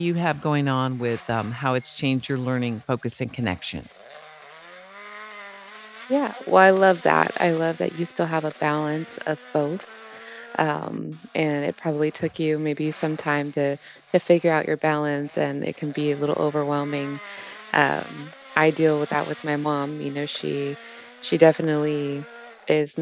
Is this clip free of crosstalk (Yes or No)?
Yes